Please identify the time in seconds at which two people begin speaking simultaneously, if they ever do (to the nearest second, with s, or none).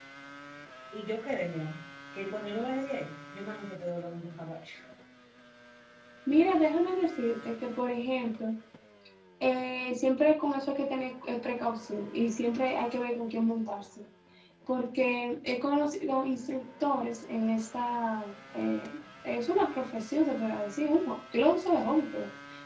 none